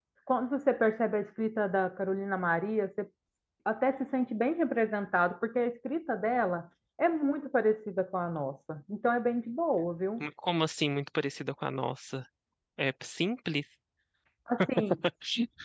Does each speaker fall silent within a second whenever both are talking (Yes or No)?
Yes